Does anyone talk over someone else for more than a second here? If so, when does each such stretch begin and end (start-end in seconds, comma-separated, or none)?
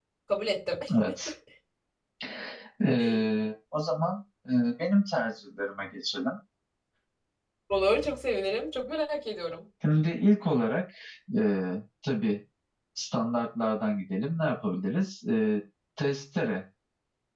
none